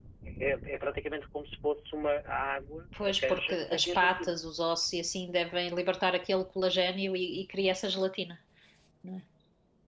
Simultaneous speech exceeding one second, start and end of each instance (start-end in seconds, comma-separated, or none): 3.0-4.3